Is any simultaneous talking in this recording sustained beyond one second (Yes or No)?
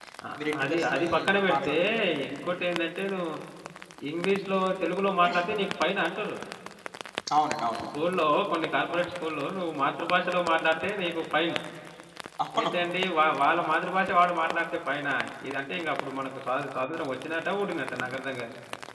Yes